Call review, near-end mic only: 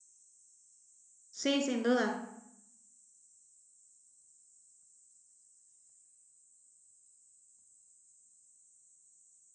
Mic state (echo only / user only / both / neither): user only